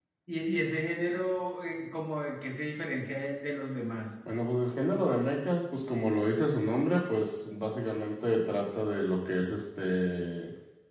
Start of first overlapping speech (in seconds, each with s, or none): none